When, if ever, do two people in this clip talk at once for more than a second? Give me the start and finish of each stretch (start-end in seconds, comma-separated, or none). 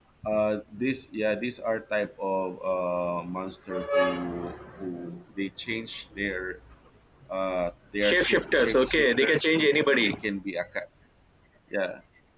8.0-9.5